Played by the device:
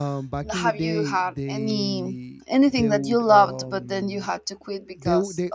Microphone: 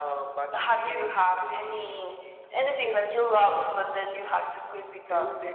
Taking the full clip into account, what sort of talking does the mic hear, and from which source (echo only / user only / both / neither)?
echo only